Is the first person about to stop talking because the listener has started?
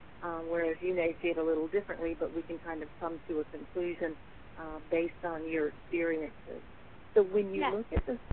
No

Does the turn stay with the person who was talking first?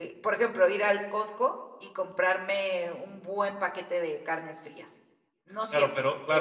No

